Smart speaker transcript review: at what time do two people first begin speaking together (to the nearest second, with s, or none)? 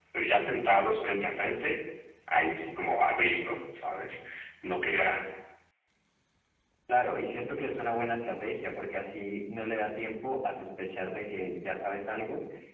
none